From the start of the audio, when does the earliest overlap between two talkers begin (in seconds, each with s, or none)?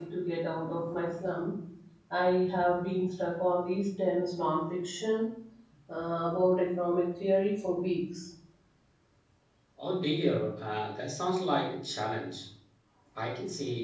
none